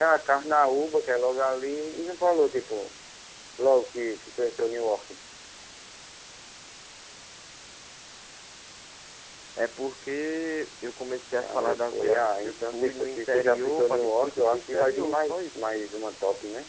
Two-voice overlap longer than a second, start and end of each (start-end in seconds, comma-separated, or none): 11.4-15.4